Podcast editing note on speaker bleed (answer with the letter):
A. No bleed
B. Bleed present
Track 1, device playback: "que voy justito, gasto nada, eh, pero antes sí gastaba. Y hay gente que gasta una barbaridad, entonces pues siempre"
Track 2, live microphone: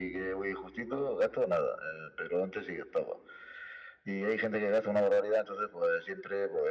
B